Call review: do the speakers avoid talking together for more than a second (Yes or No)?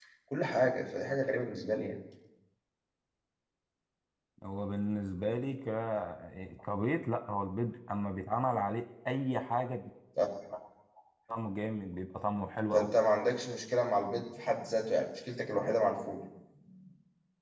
Yes